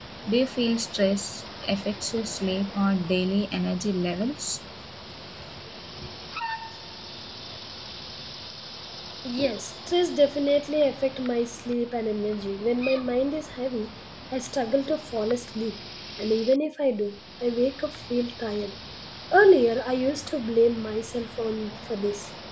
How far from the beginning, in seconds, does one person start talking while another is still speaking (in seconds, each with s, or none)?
none